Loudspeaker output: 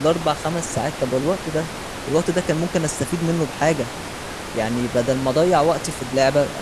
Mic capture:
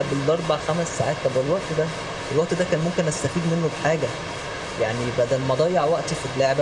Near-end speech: none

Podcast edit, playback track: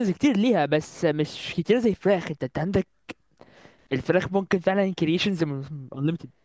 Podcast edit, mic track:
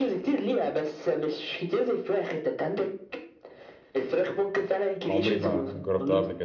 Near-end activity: present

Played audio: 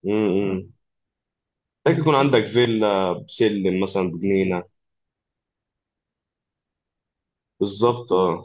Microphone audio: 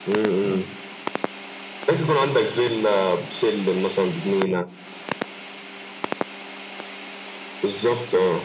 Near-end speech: none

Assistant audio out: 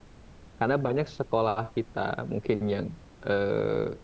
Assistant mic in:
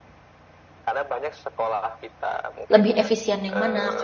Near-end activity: present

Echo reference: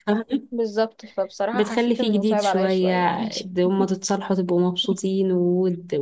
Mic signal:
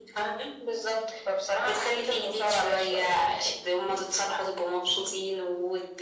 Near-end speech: none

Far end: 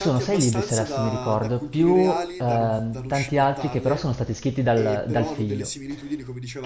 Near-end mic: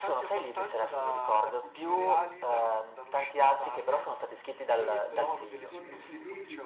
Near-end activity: present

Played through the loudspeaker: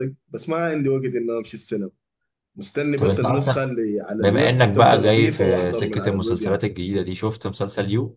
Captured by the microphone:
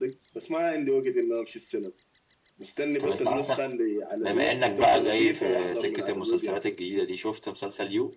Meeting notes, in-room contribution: none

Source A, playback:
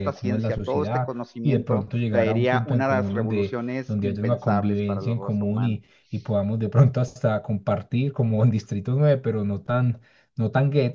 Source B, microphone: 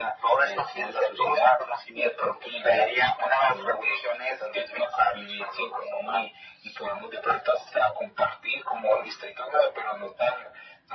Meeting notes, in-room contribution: none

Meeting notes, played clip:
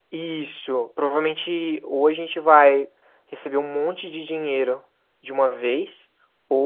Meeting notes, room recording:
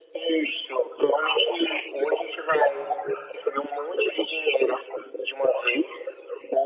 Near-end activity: none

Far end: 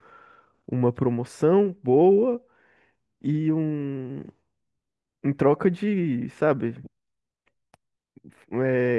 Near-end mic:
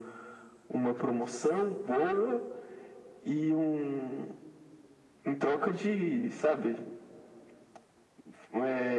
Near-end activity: none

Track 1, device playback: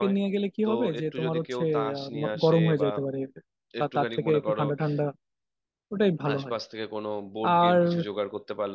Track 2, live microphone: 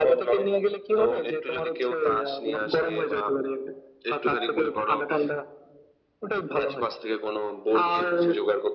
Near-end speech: none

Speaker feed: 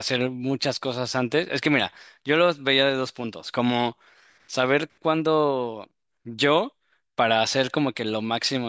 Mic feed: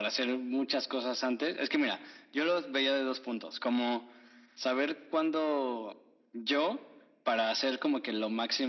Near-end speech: none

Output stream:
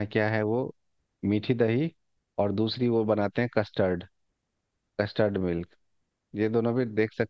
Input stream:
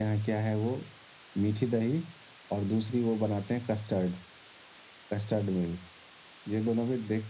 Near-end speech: none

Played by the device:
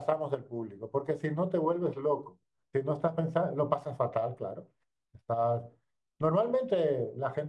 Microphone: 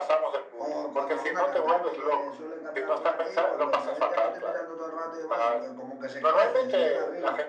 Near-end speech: present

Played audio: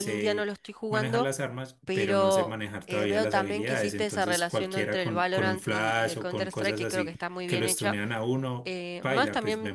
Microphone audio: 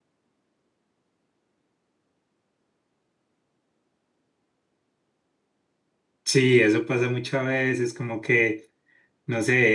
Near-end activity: present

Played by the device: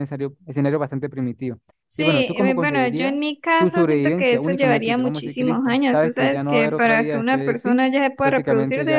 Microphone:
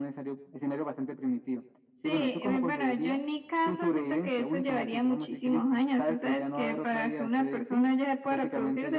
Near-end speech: none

